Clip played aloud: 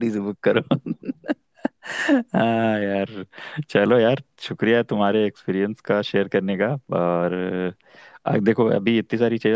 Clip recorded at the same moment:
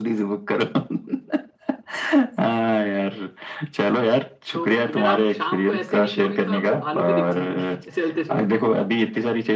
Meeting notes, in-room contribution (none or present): present